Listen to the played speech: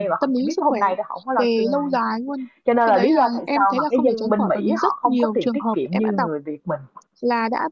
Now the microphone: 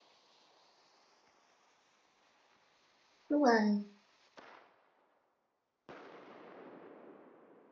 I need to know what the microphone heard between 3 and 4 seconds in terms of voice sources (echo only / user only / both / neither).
user only